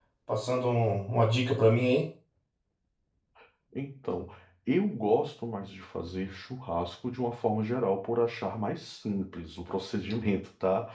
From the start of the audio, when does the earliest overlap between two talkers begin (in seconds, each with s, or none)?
none